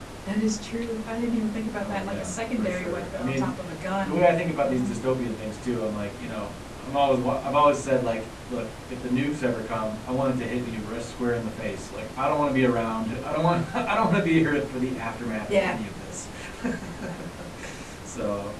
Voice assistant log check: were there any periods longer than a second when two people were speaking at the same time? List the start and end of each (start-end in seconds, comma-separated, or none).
1.8-3.5